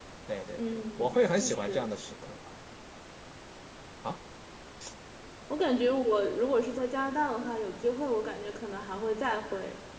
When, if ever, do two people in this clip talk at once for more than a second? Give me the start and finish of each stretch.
0.5-1.9

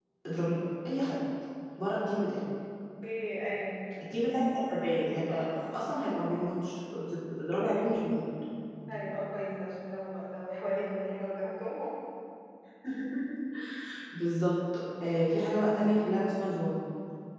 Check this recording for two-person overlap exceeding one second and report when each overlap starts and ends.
none

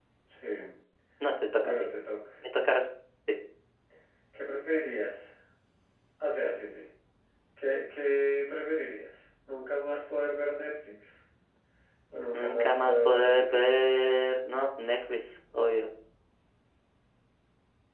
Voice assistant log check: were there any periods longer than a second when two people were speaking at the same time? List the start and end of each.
12.3-13.6

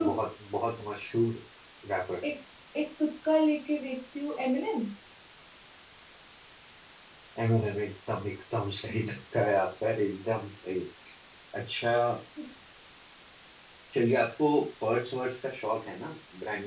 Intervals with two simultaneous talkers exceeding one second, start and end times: none

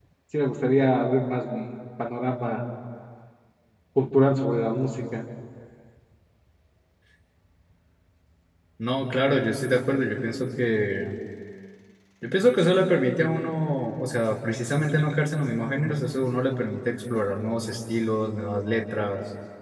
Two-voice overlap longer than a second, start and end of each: none

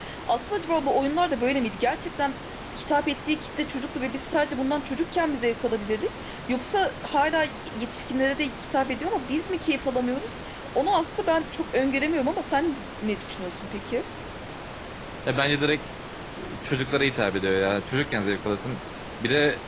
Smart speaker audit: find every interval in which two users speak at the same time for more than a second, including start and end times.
none

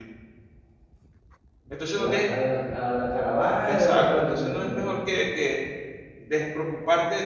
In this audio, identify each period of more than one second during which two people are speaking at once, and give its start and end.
3.7-4.9

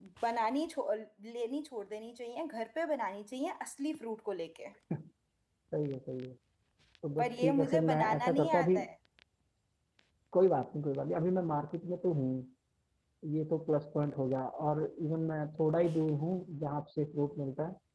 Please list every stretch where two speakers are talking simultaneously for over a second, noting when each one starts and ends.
7.2-8.8

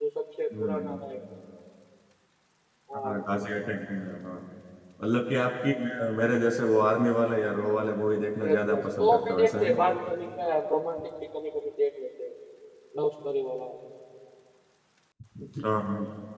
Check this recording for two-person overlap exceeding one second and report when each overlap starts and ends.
8.4-9.8

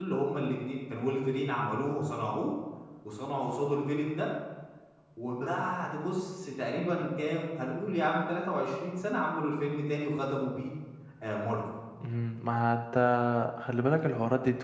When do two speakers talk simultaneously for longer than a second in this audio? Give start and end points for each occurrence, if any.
none

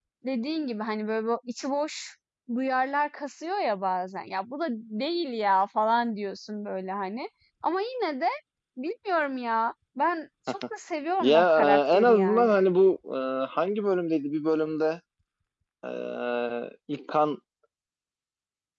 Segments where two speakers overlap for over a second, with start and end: 11.2-12.6

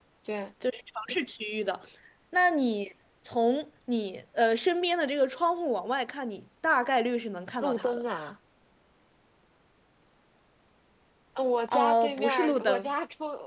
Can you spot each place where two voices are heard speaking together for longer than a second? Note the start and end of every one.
11.7-12.9

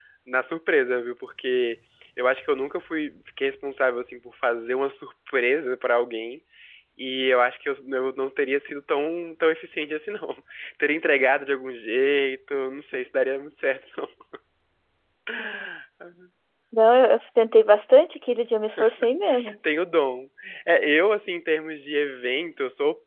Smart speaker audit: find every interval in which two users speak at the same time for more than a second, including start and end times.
none

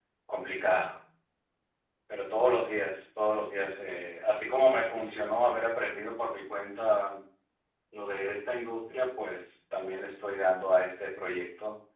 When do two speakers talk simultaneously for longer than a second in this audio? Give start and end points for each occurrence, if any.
none

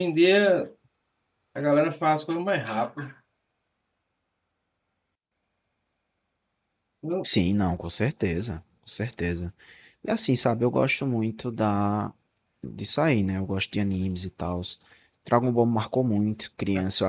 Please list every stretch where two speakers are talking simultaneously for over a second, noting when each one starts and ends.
none

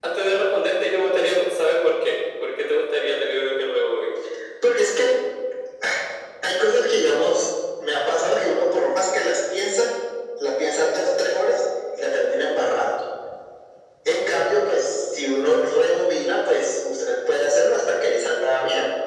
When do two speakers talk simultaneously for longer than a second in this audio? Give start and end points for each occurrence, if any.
none

